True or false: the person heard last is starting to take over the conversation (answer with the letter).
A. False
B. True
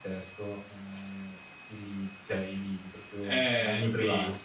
B